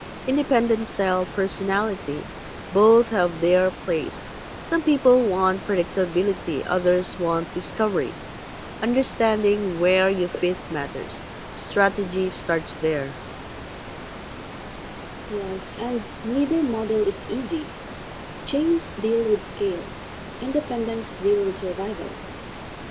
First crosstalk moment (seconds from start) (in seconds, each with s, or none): none